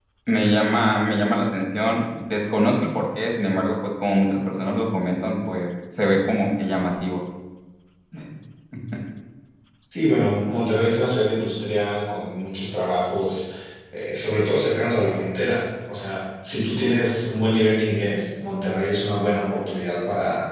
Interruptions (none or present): none